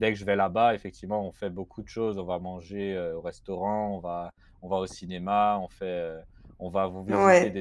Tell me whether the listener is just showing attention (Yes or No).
Yes